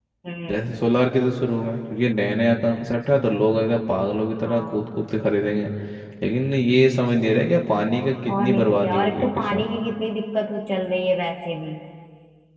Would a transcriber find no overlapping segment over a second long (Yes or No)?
No